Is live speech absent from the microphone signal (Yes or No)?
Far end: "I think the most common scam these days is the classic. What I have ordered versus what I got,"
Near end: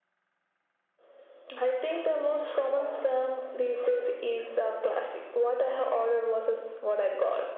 Yes